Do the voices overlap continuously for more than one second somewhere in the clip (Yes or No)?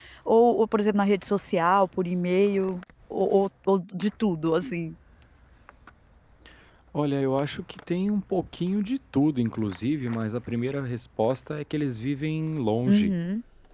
No